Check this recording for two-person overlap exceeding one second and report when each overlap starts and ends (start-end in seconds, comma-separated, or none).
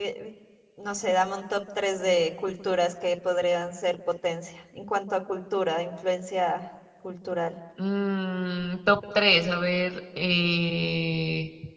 none